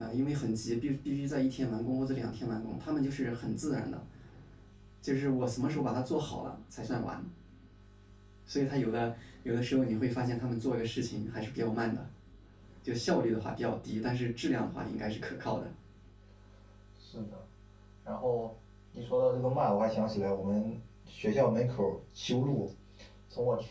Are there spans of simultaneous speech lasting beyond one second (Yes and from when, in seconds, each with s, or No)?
No